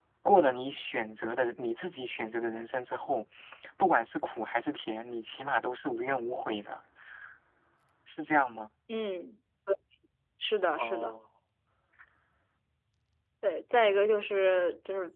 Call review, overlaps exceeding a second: none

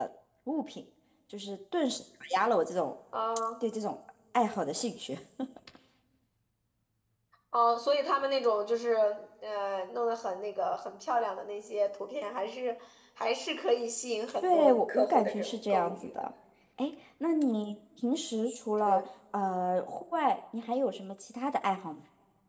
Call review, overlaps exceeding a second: present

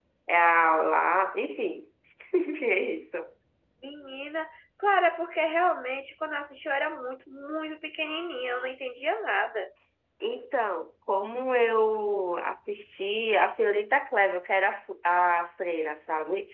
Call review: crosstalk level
none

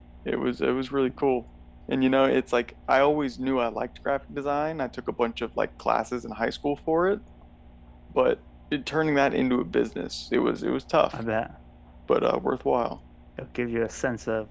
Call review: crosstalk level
none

